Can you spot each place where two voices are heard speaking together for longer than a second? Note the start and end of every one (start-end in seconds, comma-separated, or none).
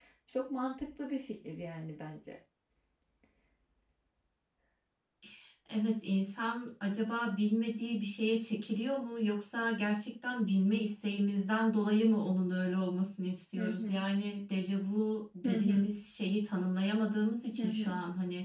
none